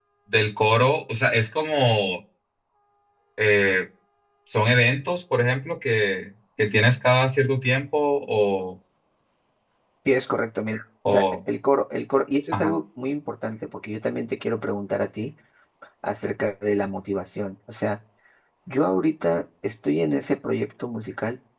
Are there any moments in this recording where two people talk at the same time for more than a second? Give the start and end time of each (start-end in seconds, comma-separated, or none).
none